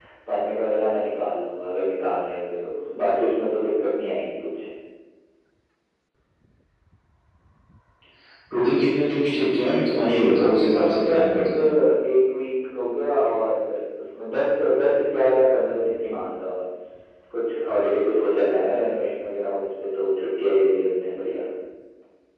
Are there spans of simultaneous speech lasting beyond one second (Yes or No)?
Yes